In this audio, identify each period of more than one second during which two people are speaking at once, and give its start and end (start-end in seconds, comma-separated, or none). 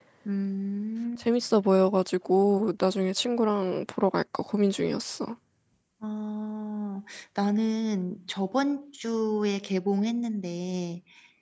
none